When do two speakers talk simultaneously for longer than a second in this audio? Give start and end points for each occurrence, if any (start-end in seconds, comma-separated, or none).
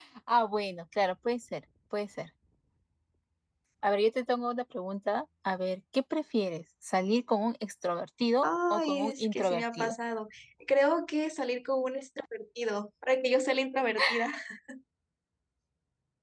8.4-9.9